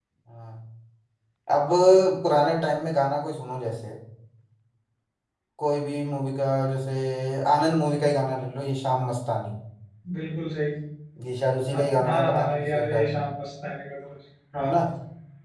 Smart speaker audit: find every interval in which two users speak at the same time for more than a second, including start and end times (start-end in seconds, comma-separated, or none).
11.7-13.1